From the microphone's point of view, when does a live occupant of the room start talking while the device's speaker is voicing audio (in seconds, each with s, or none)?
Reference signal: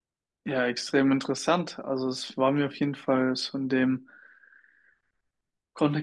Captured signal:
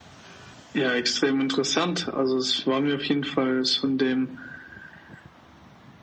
none